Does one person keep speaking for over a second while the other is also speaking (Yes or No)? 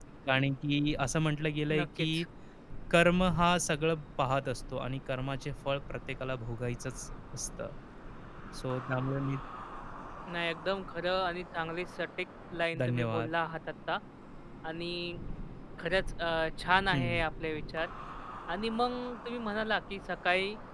No